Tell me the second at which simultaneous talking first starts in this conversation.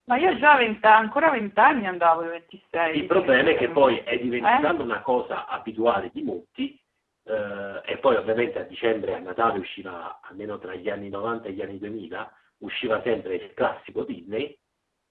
2.9 s

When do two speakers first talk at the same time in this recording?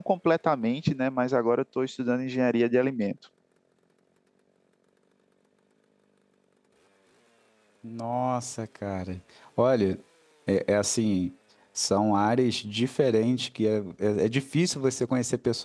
none

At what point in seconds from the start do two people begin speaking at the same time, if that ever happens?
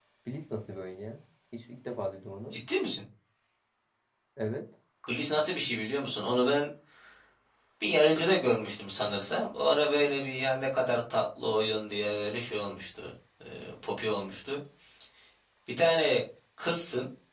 none

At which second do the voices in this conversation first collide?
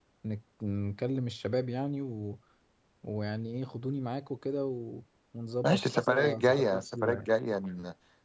5.6 s

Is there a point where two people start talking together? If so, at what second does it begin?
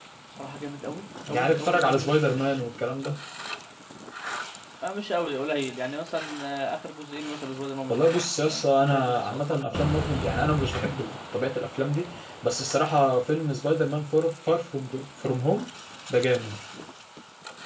1.3 s

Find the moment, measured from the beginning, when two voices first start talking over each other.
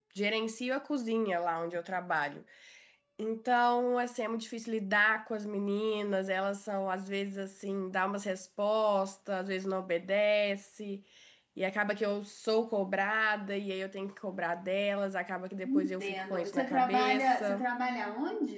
15.6 s

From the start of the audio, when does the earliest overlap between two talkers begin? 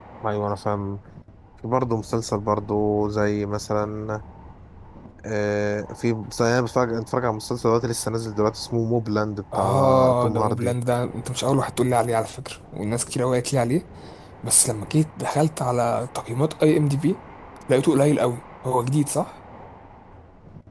9.5 s

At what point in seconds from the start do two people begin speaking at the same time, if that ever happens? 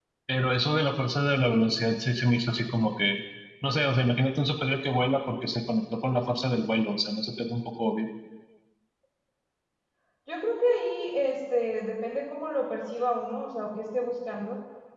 none

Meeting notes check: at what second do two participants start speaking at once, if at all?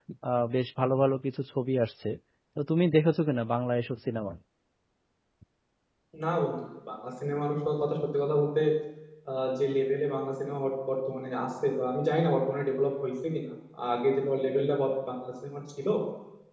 none

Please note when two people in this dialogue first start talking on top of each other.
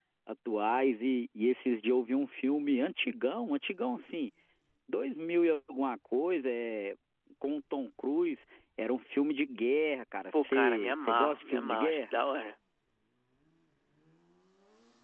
10.3 s

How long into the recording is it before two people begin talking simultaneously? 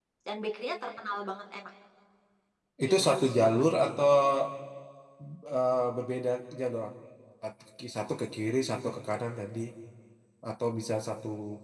2.8 s

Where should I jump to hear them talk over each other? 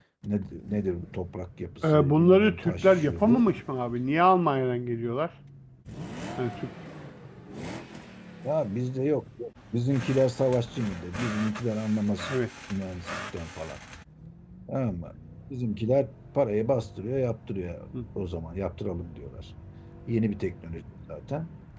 1.9 s

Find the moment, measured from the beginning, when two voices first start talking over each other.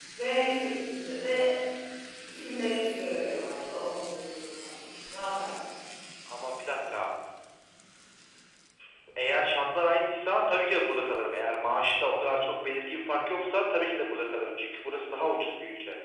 none

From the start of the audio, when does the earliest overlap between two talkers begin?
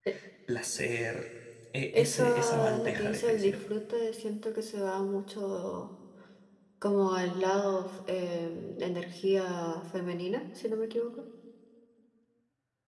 1.9 s

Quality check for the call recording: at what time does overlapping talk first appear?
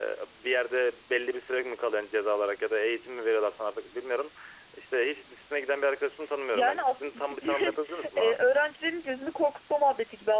6.5 s

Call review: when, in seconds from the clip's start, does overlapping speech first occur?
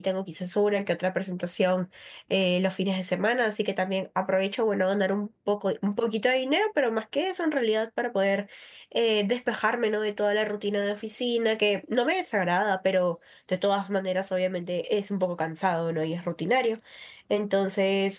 none

